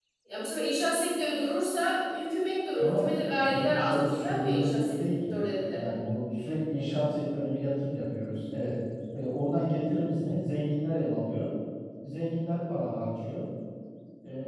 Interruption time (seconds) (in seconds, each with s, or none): 2.8 s